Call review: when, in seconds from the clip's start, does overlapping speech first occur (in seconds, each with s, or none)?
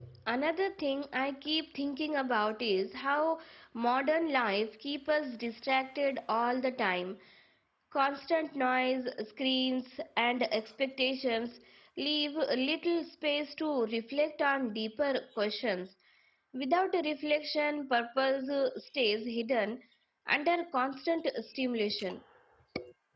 none